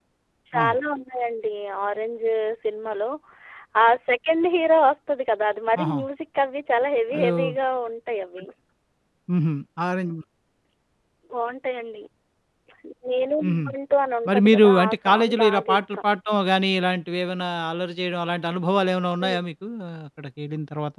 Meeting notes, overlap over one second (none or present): present